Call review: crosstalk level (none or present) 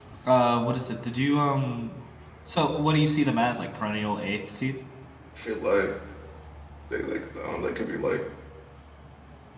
none